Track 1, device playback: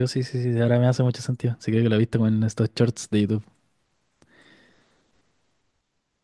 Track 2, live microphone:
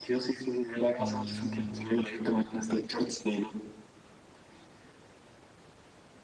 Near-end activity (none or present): present